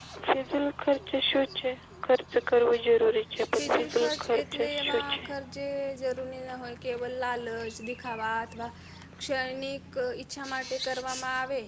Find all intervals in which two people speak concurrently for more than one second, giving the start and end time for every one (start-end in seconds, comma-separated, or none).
3.6-5.2